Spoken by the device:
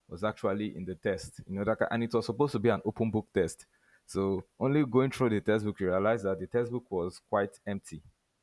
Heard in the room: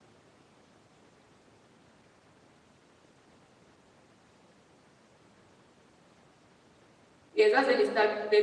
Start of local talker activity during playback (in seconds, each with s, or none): 7.3 s